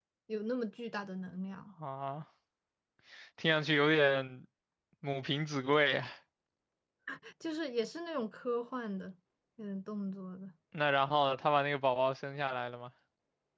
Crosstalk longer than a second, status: none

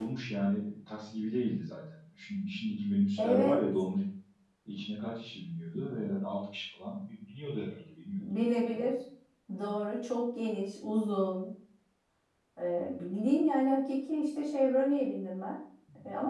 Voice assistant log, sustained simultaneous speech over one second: none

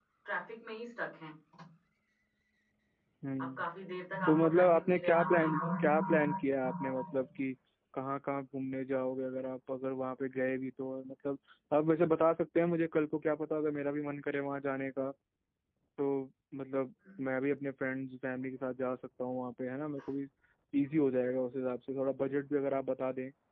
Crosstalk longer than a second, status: present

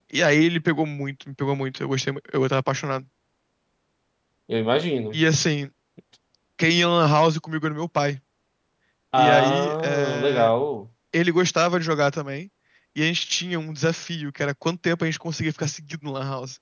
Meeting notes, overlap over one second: present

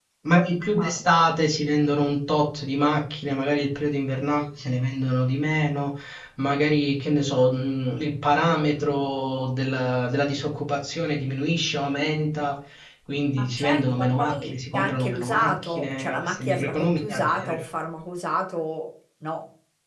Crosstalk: present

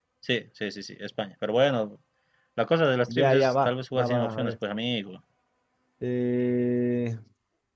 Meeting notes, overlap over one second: present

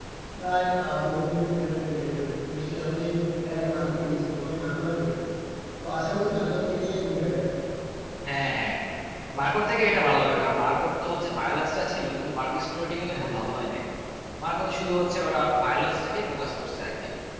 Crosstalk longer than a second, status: none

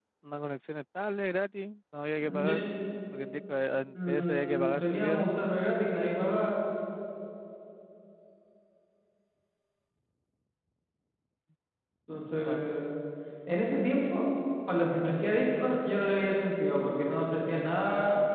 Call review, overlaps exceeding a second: present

